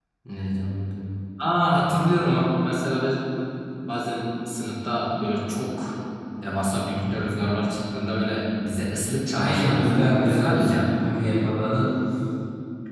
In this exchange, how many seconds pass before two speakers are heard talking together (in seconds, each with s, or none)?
9.3 s